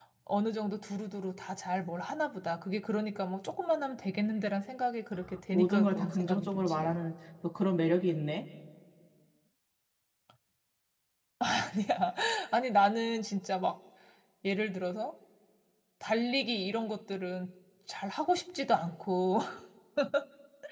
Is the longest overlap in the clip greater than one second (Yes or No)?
Yes